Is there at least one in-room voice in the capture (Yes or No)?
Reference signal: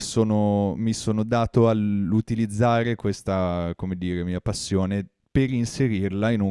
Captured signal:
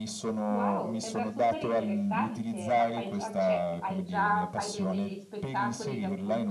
Yes